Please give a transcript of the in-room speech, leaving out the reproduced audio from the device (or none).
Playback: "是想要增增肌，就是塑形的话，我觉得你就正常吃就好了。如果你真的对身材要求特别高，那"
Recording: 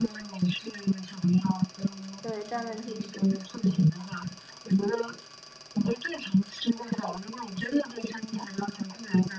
对，专门去学。